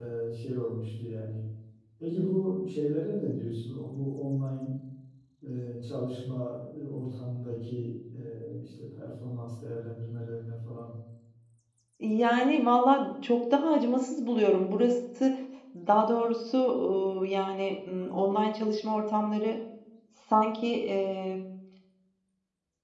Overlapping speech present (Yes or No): No